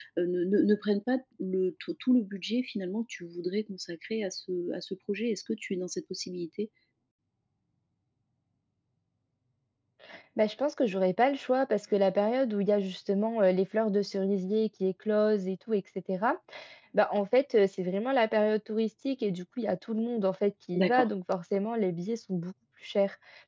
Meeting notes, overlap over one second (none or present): none